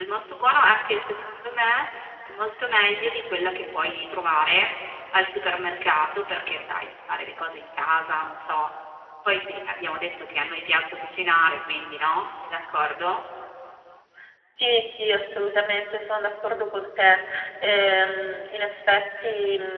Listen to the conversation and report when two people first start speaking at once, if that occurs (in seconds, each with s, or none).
none